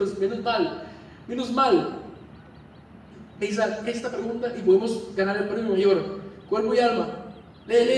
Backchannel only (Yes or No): No